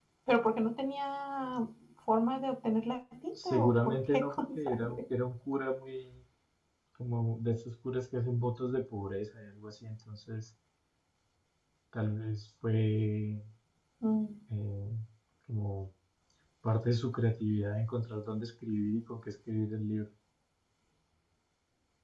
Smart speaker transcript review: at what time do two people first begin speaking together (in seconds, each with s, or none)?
3.4 s